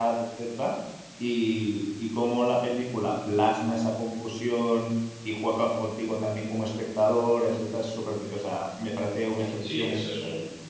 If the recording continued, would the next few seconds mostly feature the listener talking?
Yes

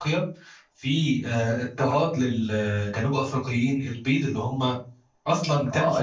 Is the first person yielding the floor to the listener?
Yes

